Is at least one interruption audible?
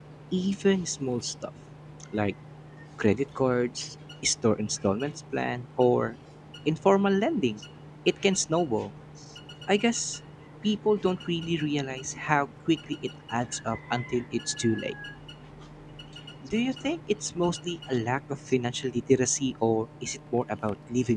No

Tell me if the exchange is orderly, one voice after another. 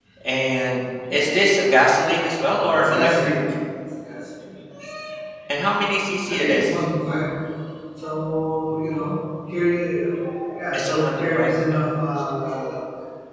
No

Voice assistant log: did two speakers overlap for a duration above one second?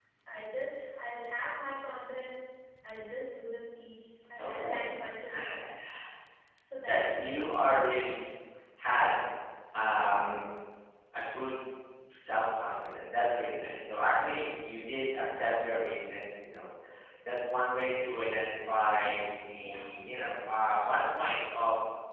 Yes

